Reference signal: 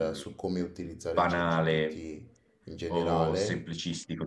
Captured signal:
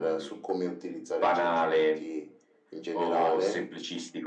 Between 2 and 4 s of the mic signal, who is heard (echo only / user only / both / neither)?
echo only